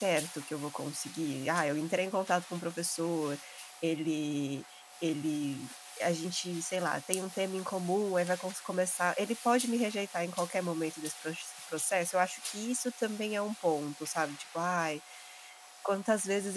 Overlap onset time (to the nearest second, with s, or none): none